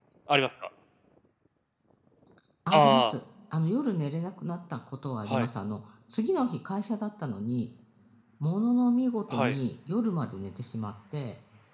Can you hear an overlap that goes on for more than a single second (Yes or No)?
No